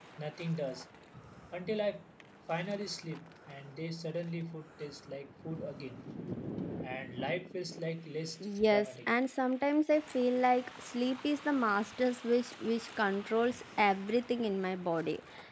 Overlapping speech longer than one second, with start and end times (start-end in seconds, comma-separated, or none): none